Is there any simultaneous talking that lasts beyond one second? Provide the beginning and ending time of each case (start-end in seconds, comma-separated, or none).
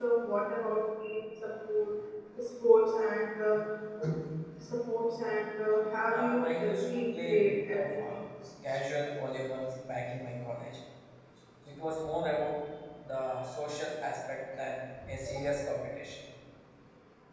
6.1-8.2